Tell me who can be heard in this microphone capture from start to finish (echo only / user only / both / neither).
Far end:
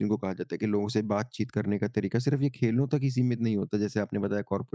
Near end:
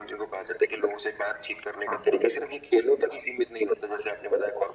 both